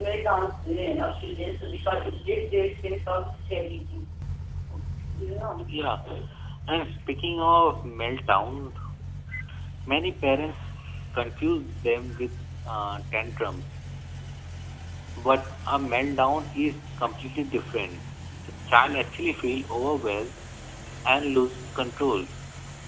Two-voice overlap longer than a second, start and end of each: none

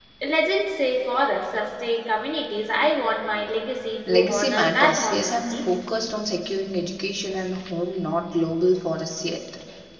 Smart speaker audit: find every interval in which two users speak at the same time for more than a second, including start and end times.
4.1-5.6

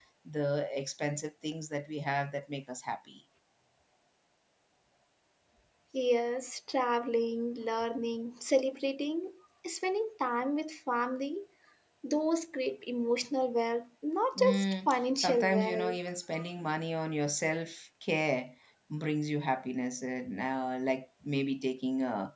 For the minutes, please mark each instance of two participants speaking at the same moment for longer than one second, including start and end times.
14.3-16.0

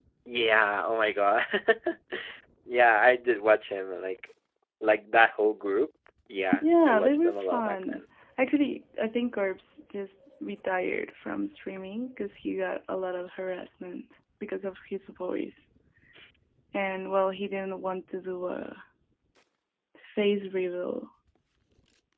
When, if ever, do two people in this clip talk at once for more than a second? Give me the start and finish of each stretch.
6.6-8.0

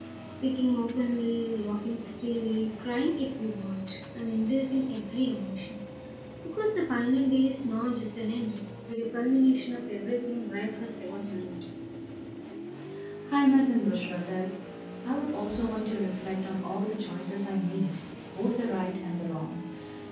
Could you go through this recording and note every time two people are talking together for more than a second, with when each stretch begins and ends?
none

